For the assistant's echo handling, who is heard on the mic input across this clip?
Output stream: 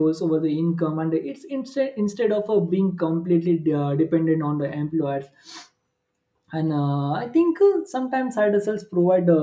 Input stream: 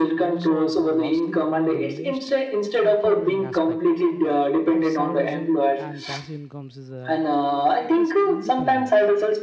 both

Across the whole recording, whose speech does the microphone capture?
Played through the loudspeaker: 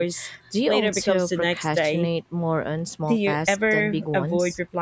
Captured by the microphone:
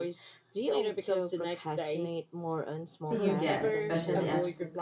both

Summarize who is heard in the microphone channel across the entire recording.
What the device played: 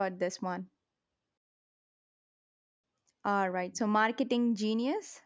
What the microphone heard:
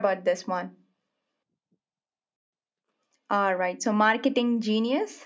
echo only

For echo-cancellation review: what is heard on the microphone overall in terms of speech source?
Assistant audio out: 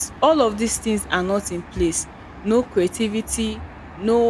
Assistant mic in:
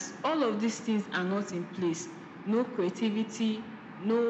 echo only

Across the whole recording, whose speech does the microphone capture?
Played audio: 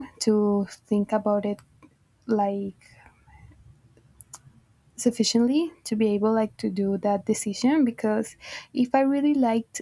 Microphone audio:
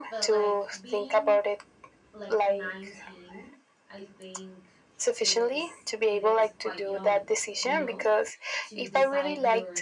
both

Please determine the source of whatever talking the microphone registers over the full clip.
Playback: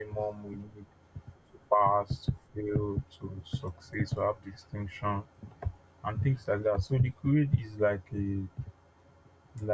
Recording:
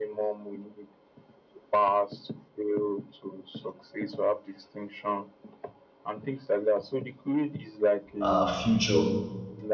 both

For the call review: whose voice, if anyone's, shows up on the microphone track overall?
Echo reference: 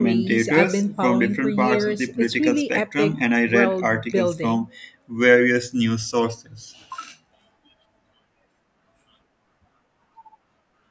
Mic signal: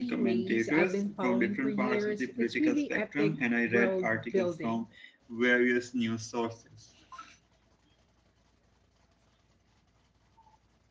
echo only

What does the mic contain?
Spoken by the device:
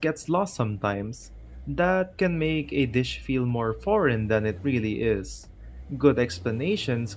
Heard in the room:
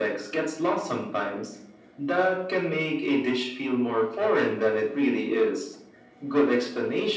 echo only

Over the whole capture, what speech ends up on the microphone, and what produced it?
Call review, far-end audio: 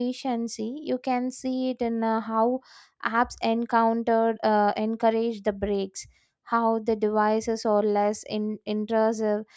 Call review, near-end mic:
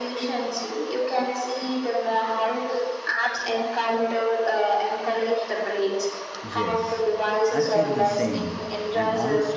both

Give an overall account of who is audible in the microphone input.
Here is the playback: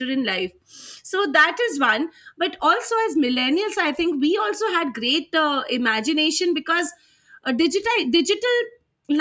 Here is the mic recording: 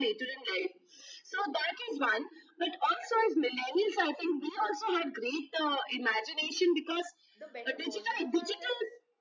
both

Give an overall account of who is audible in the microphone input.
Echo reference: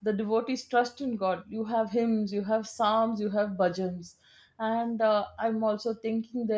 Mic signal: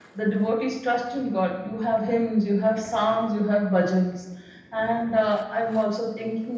echo only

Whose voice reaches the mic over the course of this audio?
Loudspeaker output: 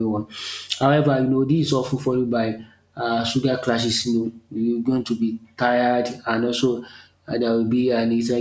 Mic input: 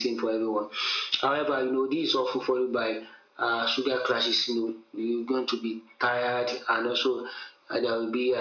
echo only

